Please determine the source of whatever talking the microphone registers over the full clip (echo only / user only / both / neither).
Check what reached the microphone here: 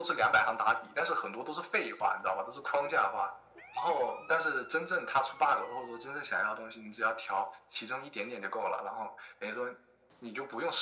echo only